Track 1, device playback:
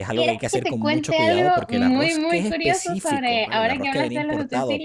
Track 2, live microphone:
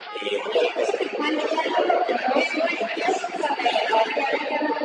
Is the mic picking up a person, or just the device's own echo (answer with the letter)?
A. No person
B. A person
A